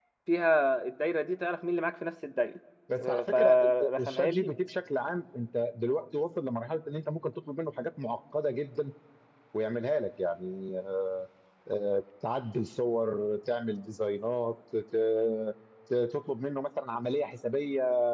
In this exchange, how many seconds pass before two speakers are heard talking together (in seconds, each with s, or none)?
3.0 s